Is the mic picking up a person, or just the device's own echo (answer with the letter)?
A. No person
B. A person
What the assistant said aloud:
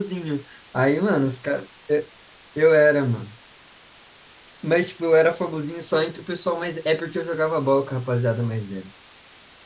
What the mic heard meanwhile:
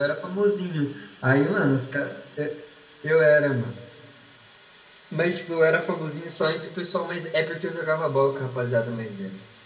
A